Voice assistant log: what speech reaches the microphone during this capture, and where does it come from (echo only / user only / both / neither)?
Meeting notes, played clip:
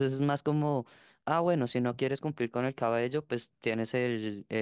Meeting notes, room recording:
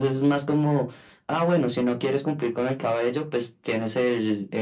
echo only